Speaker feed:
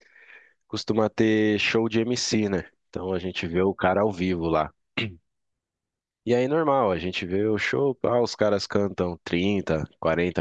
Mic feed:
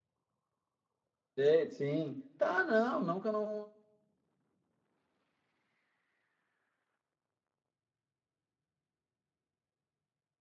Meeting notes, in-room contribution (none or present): present